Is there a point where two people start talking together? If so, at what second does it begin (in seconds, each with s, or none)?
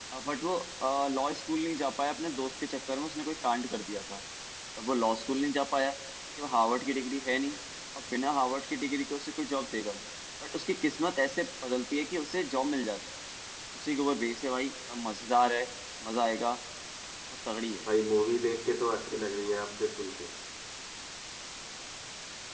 none